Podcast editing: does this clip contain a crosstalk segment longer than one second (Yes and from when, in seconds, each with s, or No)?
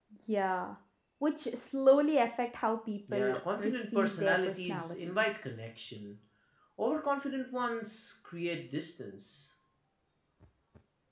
Yes, from 3.1 s